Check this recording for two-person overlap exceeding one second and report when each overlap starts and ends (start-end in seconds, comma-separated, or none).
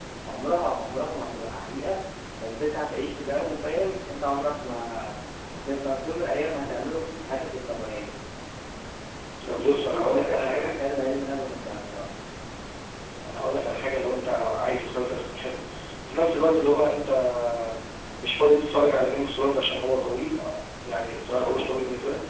9.4-10.7